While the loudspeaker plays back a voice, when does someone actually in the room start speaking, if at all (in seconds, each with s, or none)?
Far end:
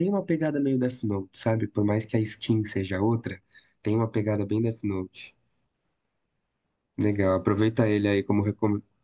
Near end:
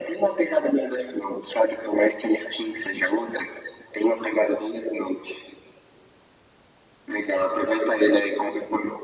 none